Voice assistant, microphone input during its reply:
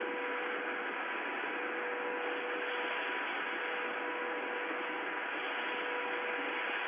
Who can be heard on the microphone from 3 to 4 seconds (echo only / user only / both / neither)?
neither